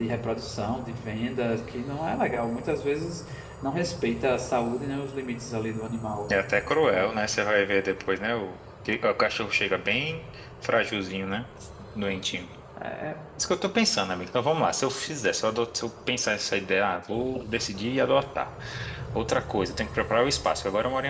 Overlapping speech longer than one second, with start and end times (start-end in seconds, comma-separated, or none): none